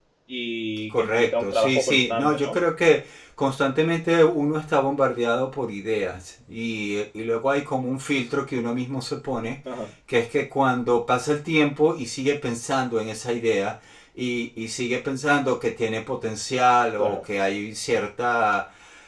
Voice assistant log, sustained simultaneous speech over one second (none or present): present